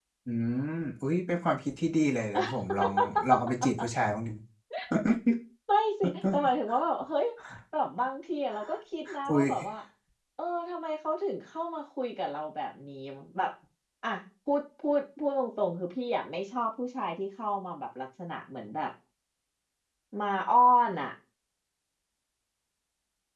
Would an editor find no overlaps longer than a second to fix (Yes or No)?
Yes